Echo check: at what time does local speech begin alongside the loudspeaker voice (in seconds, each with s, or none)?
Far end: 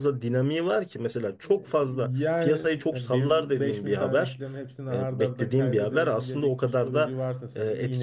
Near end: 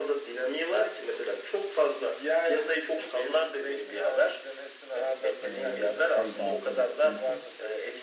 5.4 s